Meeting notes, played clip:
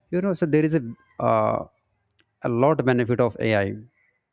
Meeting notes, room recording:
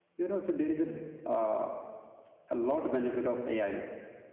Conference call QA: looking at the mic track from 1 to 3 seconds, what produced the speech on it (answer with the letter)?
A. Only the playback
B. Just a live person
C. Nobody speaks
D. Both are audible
A